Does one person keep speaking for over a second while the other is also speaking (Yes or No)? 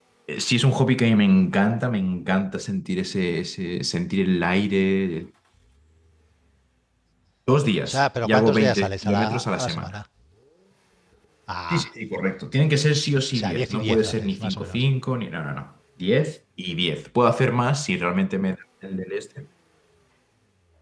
Yes